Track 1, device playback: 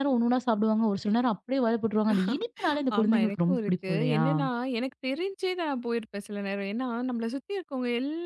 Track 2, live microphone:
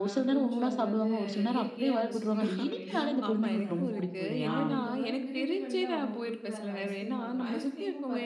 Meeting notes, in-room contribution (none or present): present